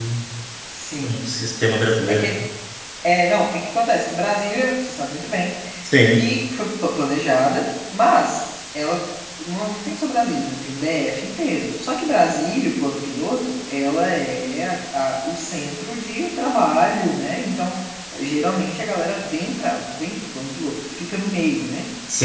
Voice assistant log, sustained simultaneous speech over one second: none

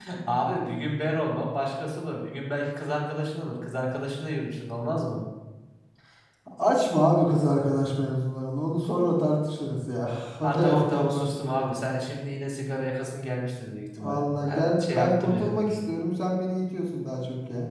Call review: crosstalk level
present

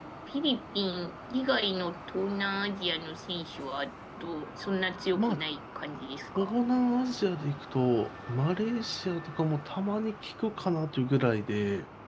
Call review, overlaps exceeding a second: none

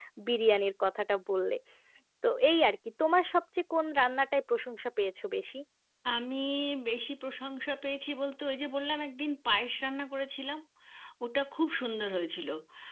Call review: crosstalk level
none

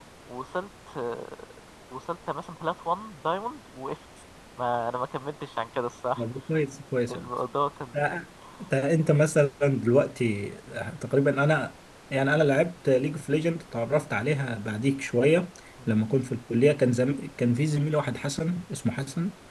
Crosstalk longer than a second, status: none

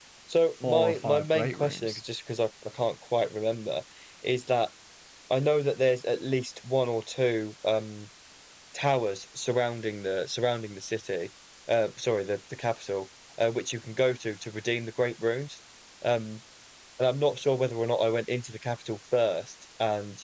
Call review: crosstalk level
present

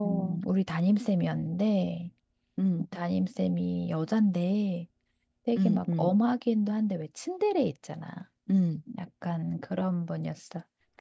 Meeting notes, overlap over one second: none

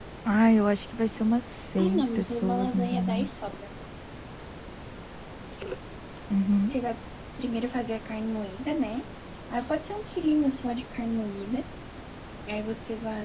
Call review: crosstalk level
present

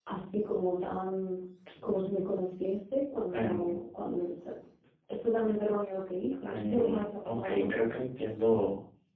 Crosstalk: present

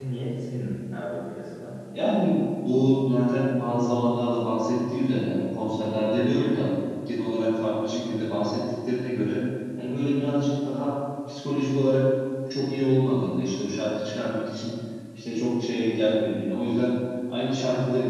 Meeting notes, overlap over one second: none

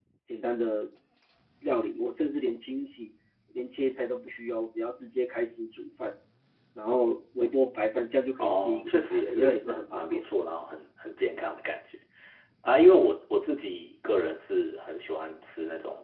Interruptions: present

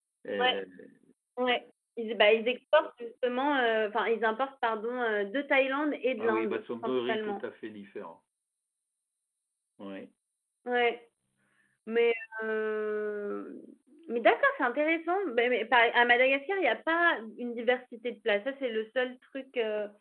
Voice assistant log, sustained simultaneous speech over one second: present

